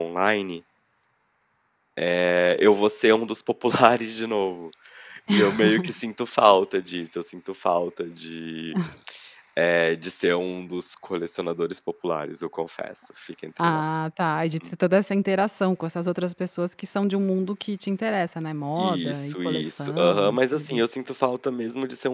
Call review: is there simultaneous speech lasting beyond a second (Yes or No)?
Yes